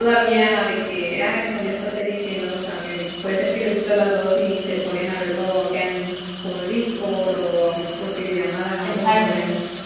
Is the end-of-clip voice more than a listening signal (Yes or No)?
Yes